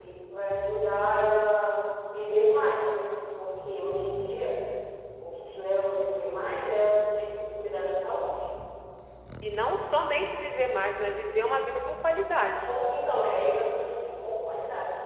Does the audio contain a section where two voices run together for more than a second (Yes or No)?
No